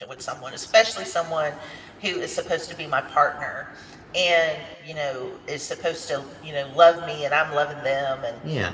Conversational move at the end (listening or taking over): listening